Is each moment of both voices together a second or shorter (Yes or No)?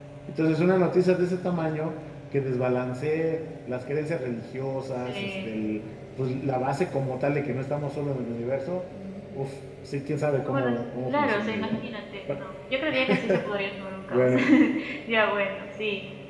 No